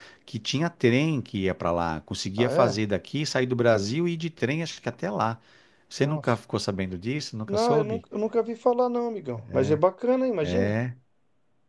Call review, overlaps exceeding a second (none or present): none